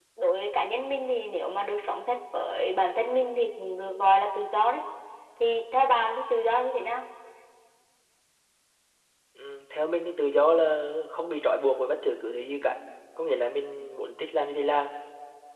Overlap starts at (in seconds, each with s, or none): none